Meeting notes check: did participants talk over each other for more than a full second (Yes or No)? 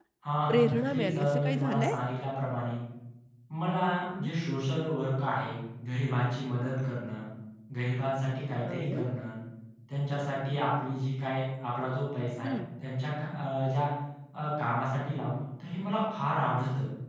Yes